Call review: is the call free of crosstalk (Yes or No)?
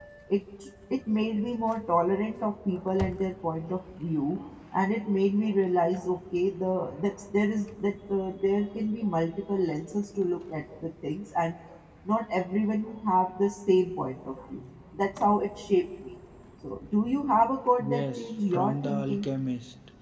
No